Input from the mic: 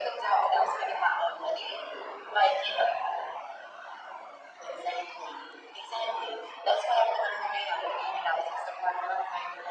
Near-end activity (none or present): none